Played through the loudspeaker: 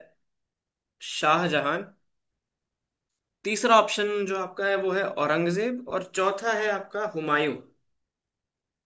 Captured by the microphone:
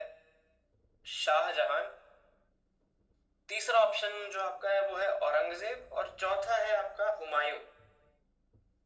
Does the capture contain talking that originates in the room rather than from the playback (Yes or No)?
No